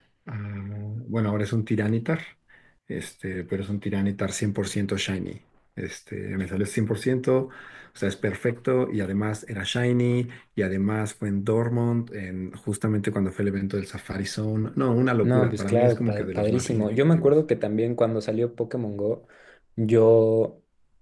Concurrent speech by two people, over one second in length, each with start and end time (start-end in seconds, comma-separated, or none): 15.2-17.3